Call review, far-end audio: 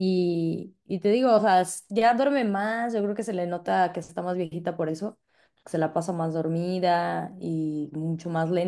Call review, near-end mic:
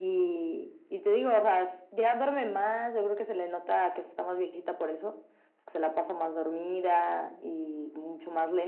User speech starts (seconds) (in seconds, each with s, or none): none